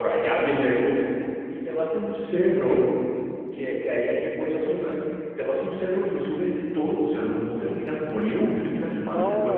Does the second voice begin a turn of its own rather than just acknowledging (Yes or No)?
Yes